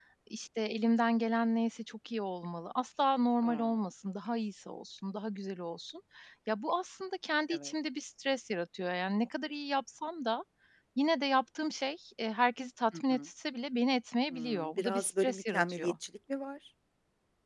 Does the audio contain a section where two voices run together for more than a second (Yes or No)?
Yes